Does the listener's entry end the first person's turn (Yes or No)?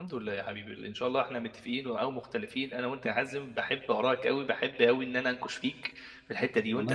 Yes